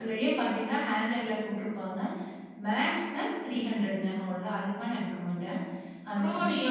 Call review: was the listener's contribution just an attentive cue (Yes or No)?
No